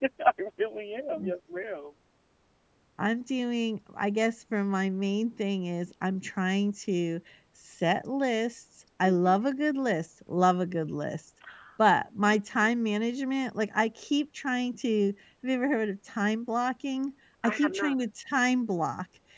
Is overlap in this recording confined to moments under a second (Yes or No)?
Yes